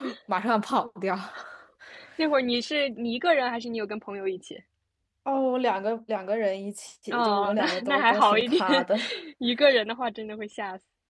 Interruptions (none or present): present